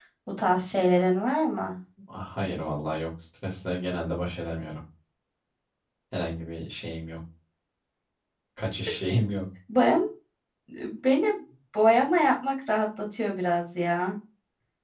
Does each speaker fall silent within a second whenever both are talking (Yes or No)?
Yes